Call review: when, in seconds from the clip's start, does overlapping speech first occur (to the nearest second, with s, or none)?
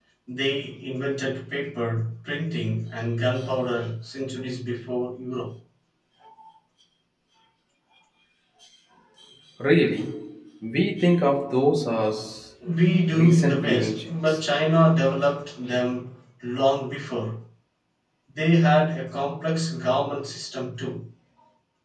13 s